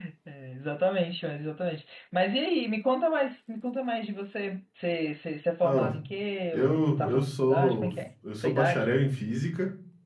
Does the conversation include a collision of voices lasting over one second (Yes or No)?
Yes